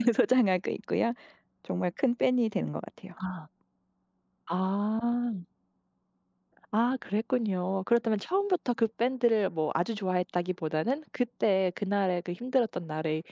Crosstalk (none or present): none